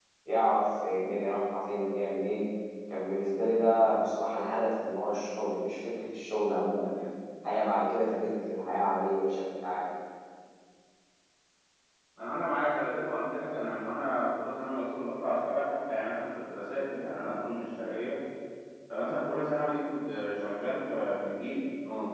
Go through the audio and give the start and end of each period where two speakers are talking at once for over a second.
none

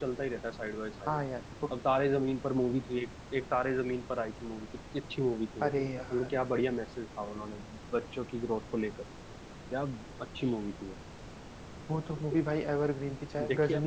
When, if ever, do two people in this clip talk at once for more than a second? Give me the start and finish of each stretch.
none

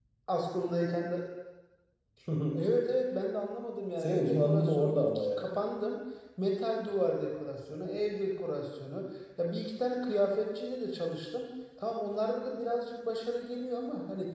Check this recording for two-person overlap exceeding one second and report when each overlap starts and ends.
4.0-5.5

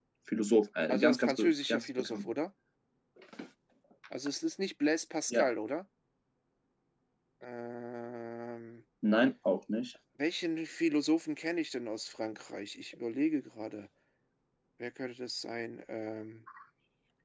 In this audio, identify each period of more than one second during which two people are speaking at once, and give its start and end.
0.9-2.3

